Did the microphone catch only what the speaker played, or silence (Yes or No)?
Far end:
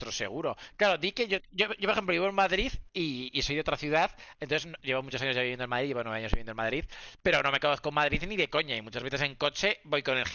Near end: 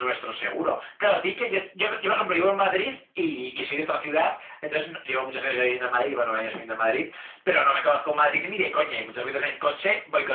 Yes